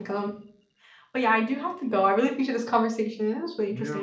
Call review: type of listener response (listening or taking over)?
taking over